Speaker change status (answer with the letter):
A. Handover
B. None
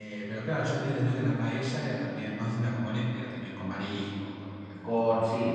A